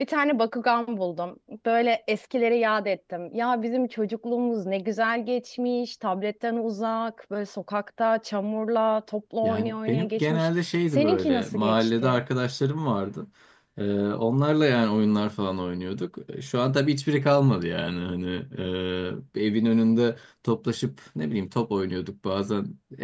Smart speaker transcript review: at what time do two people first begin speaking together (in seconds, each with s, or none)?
9.4 s